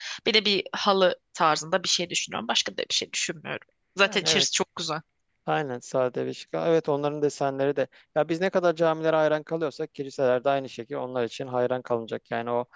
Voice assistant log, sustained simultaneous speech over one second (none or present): none